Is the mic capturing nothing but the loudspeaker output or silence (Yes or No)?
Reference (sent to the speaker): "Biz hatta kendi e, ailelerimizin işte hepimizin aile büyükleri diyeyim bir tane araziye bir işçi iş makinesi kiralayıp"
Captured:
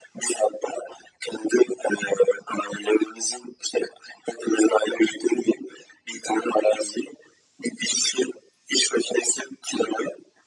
Yes